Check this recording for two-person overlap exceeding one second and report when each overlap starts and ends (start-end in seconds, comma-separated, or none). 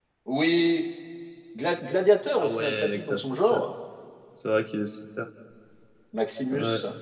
2.4-3.6